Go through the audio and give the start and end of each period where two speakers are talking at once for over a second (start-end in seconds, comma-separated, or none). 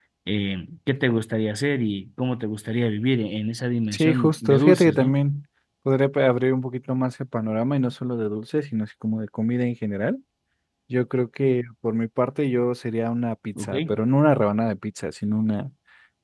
3.9-5.2